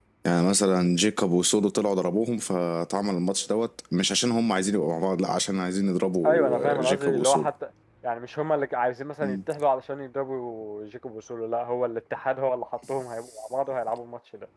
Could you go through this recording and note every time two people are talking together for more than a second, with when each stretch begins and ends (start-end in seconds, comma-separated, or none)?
6.2-7.5